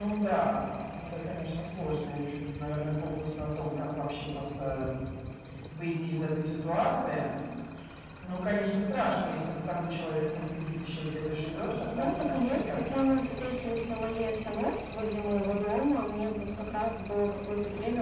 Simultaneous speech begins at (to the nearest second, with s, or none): 12 s